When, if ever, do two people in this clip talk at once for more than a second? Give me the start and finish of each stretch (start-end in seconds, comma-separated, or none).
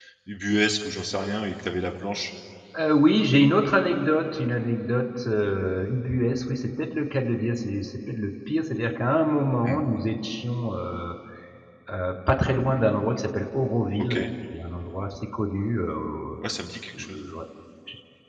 none